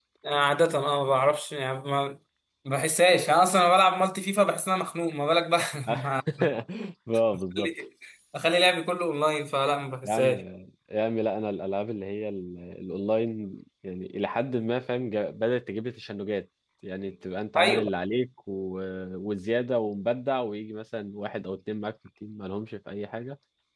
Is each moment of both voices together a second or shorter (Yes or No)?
Yes